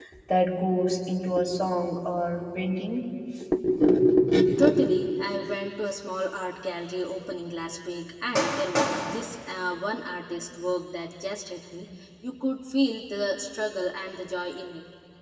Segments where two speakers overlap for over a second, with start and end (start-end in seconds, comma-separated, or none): none